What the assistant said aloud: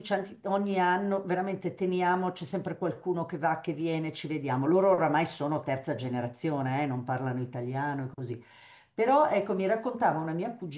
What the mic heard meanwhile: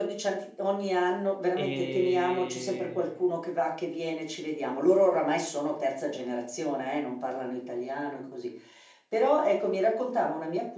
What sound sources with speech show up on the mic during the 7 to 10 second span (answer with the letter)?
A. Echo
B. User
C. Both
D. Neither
A